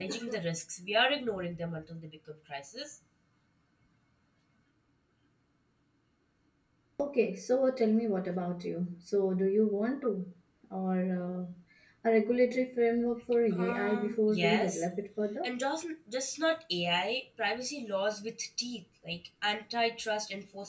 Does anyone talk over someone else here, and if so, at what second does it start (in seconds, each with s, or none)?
13.5 s